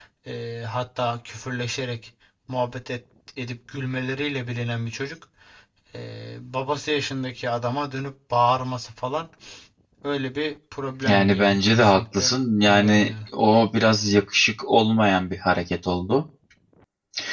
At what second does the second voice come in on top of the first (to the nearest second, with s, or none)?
11 s